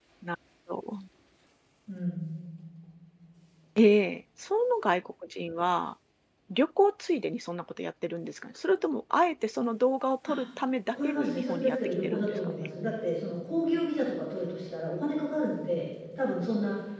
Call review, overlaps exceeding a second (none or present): present